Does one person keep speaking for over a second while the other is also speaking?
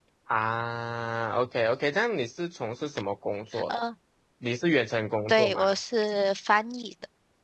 No

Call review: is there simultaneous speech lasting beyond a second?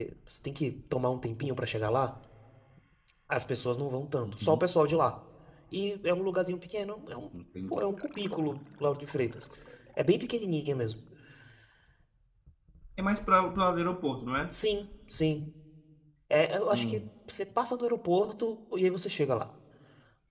No

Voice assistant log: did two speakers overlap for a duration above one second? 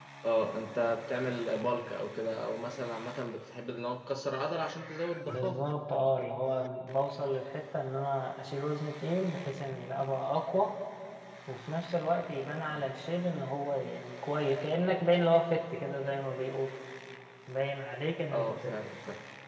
No

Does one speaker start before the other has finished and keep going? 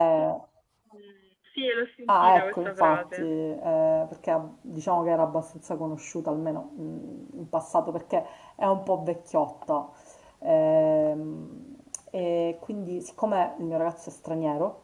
Yes, from 2.1 s

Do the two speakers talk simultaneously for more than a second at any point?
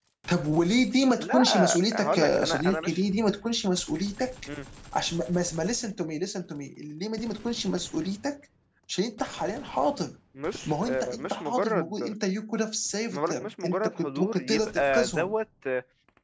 Yes, from 1.2 s

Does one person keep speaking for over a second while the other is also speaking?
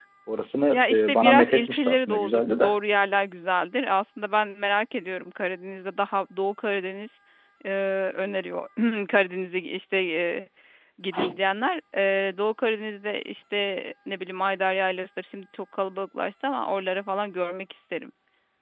Yes, from 0.7 s

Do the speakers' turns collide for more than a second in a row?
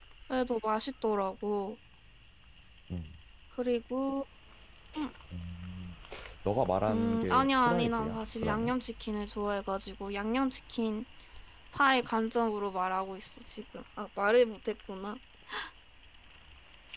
Yes, from 6.9 s

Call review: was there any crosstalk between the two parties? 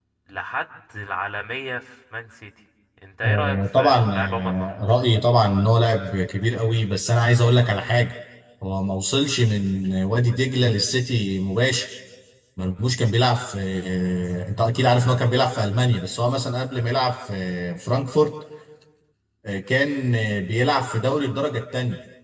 Yes, from 3.2 s

